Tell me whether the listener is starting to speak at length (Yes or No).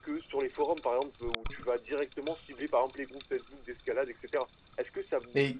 No